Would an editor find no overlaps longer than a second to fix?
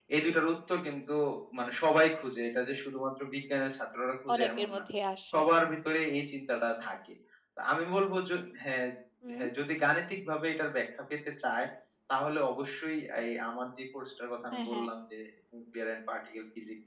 Yes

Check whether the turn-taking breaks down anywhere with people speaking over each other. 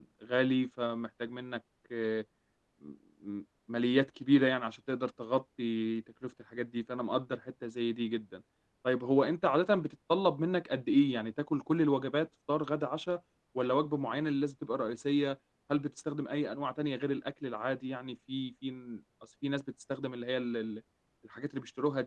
No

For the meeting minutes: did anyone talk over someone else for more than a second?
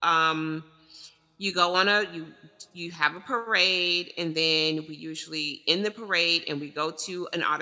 No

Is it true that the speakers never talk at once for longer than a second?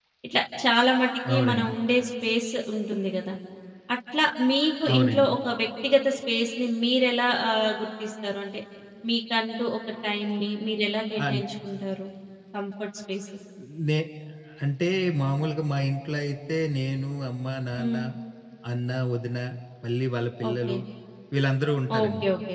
Yes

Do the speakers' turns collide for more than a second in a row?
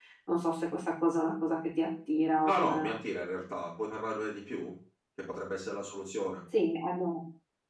No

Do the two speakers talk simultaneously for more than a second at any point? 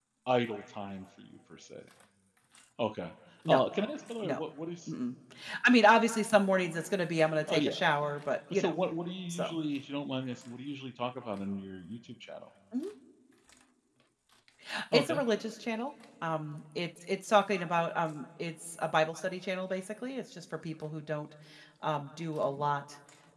No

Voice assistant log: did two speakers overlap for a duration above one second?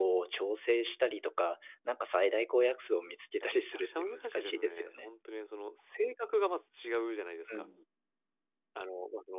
Yes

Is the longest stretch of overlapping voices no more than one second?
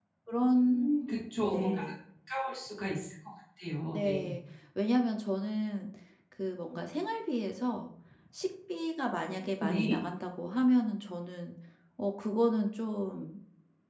Yes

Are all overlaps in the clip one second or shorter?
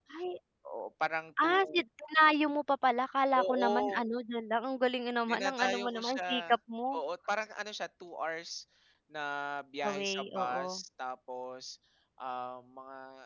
No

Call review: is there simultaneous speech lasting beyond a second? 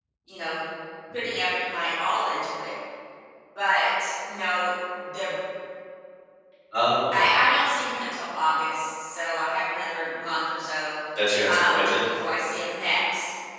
No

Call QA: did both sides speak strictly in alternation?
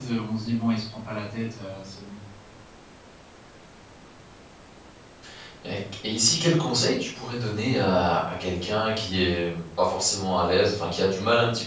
Yes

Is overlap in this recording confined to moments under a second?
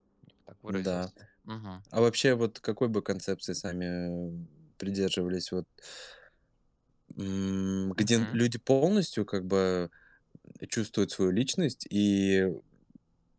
Yes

